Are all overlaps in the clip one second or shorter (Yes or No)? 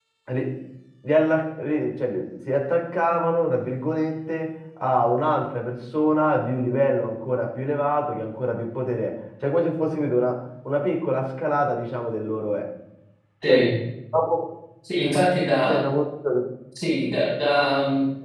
Yes